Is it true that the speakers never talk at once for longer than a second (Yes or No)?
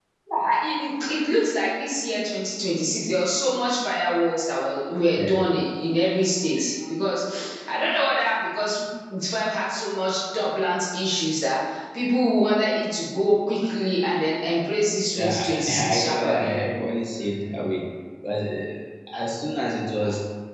No